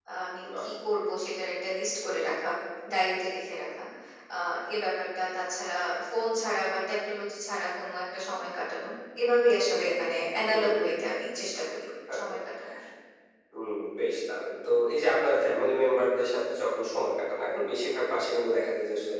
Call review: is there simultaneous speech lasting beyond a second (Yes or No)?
No